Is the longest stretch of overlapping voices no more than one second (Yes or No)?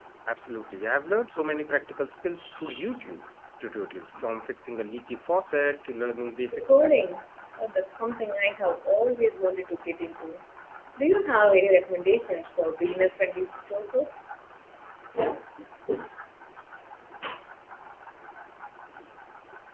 Yes